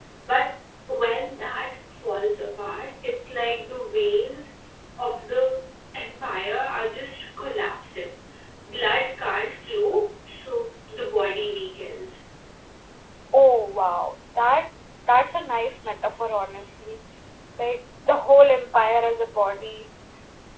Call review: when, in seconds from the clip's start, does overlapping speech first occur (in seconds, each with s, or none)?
none